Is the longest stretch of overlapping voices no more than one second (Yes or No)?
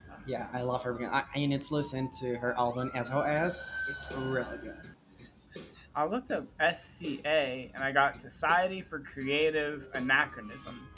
Yes